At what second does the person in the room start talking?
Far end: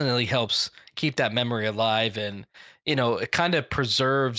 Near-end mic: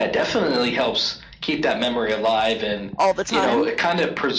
3.0 s

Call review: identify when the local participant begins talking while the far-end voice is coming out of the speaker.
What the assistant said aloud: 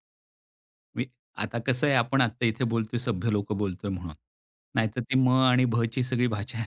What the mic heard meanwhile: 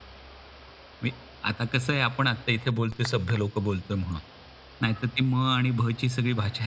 none

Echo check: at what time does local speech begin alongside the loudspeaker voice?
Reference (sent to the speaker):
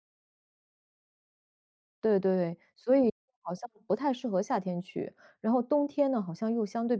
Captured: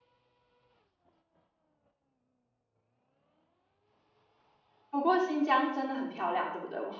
4.9 s

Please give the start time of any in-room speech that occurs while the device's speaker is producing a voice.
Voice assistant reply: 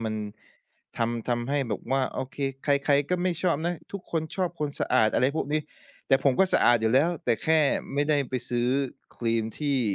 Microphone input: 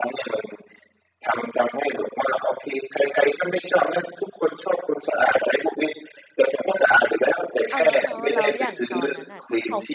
7.7 s

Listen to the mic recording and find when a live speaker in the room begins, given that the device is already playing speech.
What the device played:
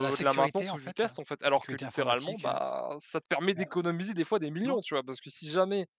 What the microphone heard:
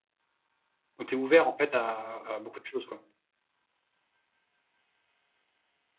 1.0 s

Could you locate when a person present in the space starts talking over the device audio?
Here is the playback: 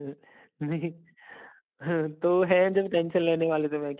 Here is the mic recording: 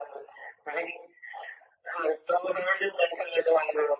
none

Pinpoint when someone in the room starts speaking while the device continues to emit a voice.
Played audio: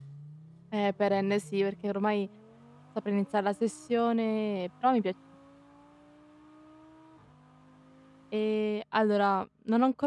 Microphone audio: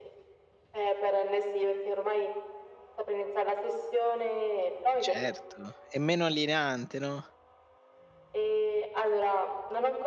5.0 s

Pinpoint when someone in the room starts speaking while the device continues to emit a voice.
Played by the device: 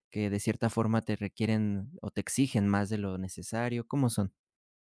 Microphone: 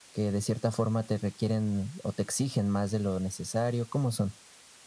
none

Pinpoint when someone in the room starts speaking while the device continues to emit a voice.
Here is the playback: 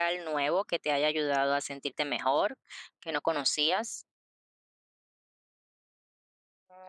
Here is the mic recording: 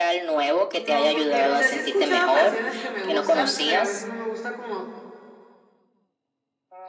0.7 s

